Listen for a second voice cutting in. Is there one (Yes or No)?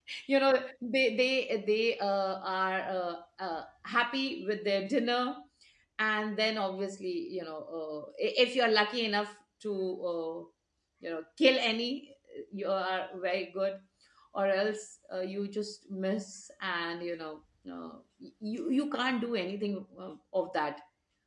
No